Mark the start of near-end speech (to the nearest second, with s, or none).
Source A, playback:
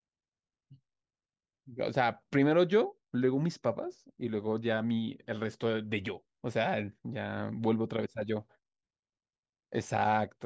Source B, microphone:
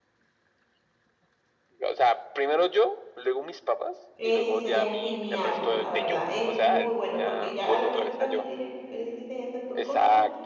4 s